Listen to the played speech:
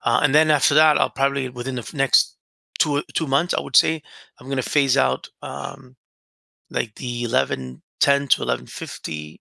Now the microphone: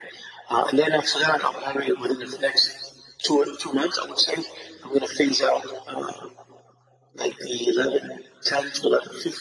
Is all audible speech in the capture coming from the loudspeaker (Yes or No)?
Yes